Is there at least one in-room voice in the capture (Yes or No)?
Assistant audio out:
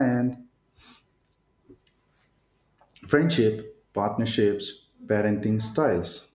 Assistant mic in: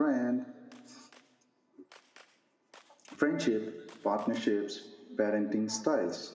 No